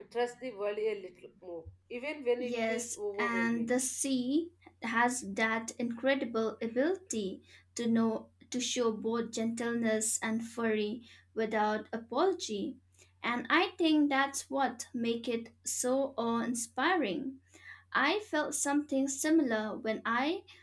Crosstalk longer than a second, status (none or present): present